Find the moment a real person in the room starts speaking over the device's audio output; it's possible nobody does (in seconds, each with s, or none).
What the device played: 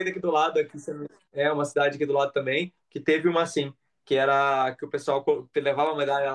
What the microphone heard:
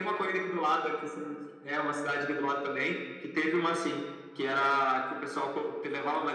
none